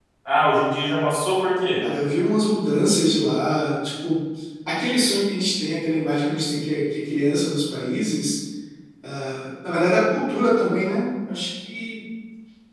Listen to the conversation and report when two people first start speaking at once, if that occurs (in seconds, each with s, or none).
none